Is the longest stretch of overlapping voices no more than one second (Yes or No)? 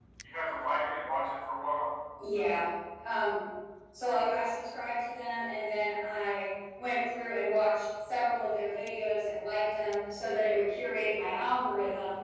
Yes